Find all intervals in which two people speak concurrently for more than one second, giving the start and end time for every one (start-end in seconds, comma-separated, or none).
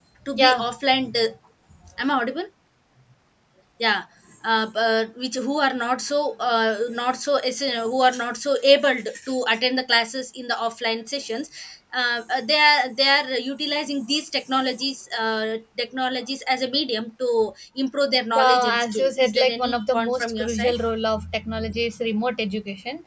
18.4-20.7